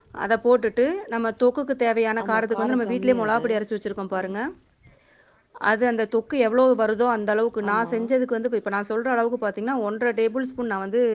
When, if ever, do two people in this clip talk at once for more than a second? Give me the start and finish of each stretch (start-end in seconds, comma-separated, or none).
2.2-3.5